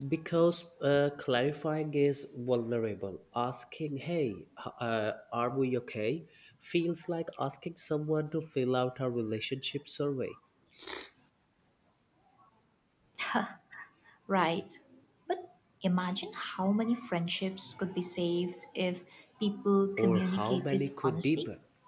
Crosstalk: present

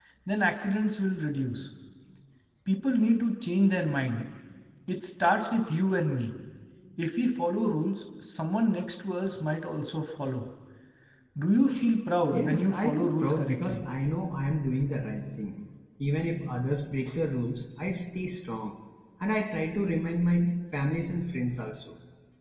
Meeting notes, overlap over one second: present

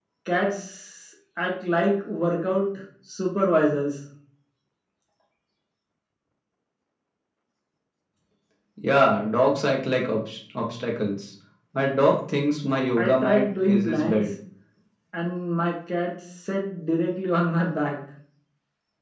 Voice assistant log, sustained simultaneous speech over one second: present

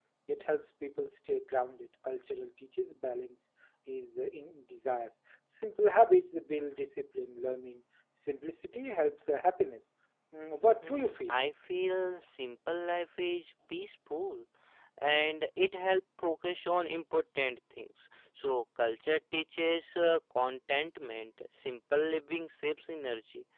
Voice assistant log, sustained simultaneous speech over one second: none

